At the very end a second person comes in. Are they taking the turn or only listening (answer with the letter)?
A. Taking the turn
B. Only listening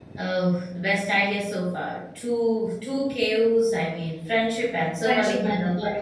A